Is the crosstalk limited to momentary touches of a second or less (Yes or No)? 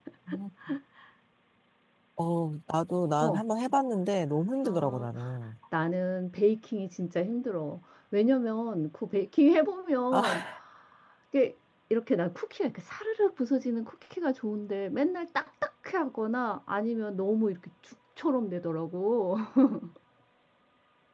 Yes